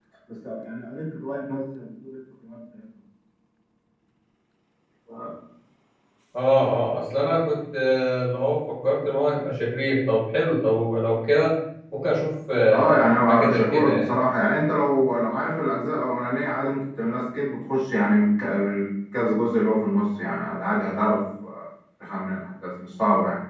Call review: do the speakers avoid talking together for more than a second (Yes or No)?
No